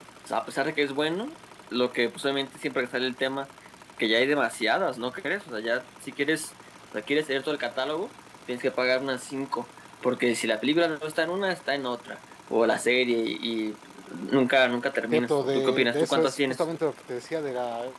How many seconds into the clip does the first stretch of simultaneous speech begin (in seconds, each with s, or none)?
15.1 s